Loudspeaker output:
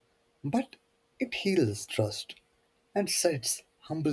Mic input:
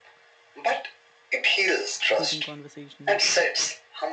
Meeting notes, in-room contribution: present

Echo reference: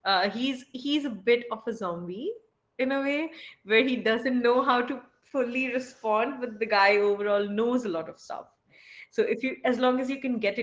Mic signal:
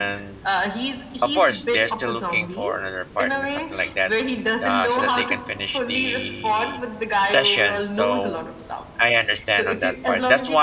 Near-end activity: present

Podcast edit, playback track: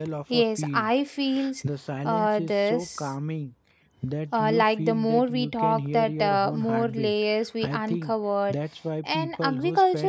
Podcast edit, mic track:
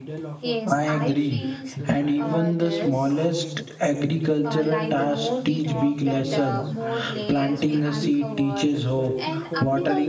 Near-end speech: present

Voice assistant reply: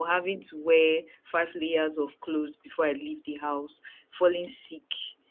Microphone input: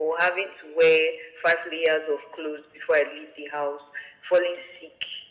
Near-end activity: none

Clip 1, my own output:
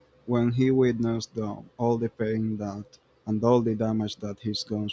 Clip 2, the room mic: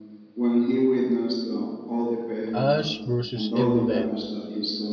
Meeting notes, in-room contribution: present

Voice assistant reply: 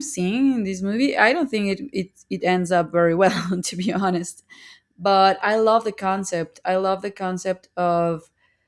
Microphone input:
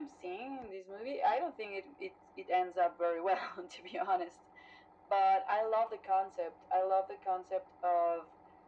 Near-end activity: none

